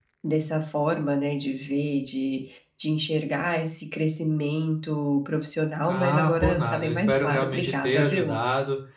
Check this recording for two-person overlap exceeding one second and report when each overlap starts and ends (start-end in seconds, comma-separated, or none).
5.9-8.4